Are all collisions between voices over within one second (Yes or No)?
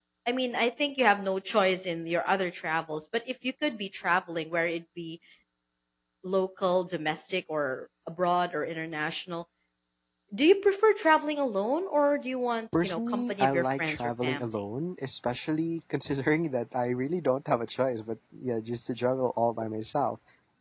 No